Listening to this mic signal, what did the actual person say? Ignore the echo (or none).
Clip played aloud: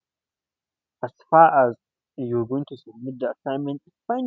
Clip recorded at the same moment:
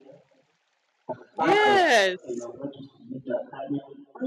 Yes,